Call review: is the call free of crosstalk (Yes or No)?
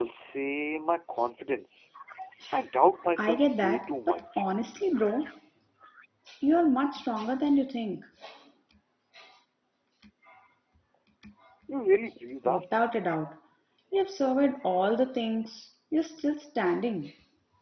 No